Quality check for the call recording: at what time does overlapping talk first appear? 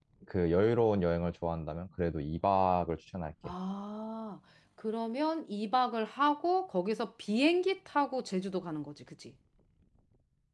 none

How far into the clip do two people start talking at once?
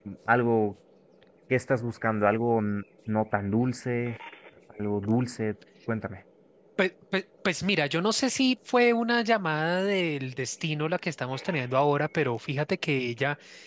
none

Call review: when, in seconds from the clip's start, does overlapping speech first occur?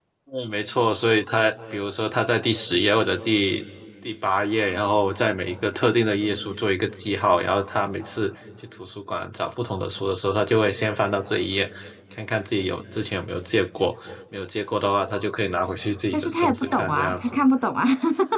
16.1 s

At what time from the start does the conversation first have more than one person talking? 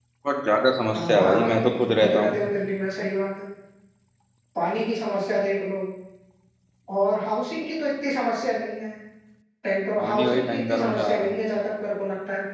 0.9 s

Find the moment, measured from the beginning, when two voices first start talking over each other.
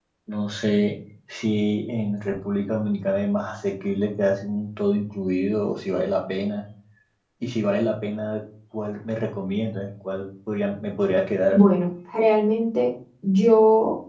none

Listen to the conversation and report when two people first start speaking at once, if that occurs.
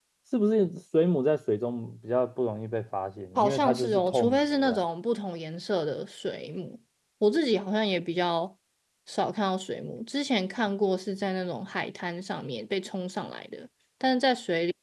3.4 s

